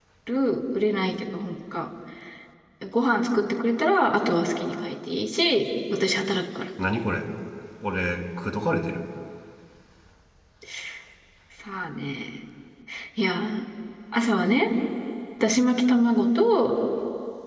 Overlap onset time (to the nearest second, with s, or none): none